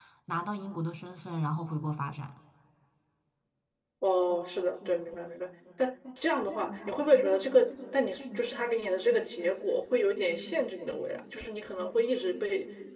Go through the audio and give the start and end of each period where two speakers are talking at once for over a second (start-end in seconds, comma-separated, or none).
none